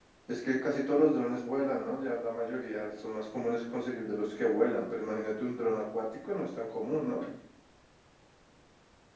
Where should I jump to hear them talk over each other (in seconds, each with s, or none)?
none